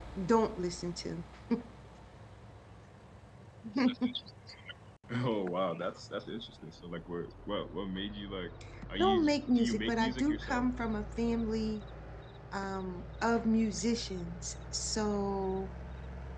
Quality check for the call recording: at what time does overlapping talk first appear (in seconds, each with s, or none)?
8.9 s